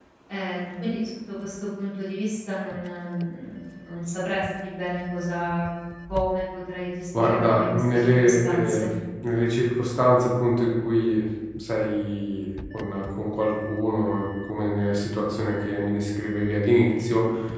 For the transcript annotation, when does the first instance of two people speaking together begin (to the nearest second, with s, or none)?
7 s